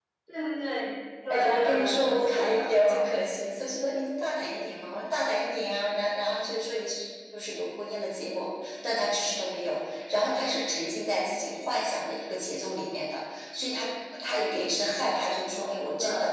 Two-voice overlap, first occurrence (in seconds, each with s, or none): 1.3 s